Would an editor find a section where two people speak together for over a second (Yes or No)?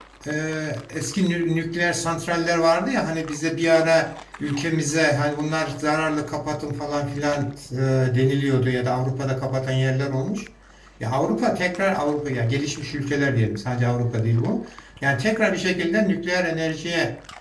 No